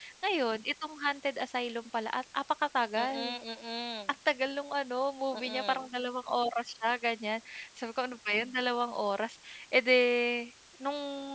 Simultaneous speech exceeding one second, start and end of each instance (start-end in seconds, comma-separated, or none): none